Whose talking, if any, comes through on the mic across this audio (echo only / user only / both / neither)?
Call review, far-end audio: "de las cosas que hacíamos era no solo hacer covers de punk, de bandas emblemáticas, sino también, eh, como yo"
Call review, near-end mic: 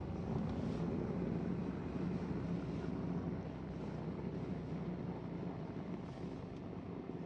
neither